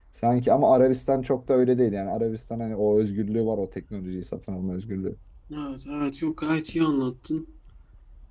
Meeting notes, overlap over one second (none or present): none